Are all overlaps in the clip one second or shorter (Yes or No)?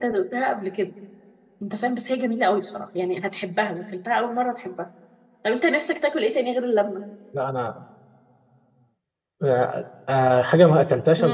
Yes